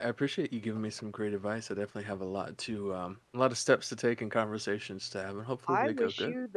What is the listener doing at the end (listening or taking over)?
taking over